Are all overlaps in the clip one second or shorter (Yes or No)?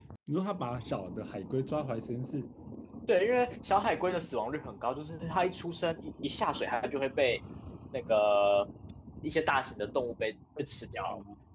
Yes